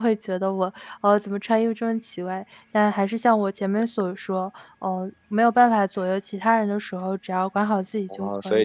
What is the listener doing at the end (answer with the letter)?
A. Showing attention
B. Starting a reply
B